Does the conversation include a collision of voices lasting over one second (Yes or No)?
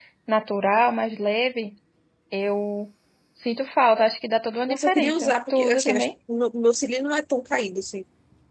Yes